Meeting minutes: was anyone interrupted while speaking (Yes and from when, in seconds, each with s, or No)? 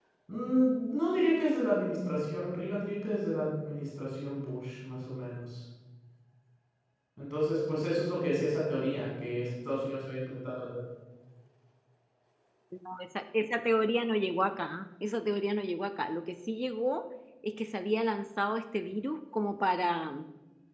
No